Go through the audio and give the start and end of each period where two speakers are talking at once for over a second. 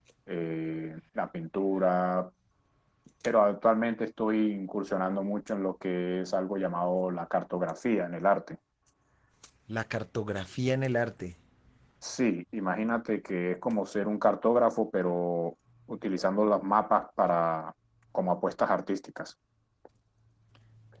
none

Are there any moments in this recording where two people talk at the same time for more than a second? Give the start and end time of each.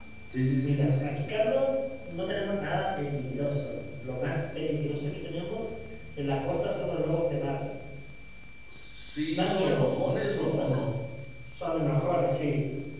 9.3-10.7

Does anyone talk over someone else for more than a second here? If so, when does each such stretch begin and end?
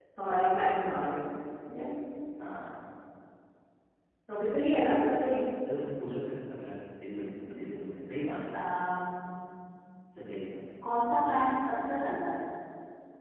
none

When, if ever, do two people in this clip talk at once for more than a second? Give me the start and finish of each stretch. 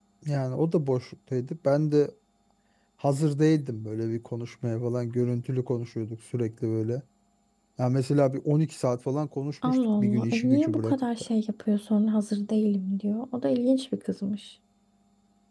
9.7-11.3

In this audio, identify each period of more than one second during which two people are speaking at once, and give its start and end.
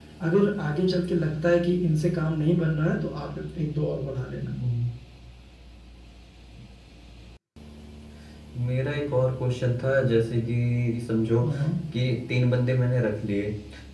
none

